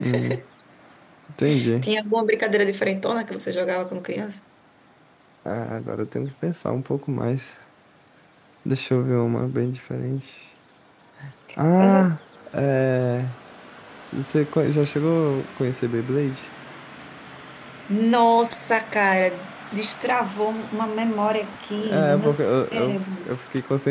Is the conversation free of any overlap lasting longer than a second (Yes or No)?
No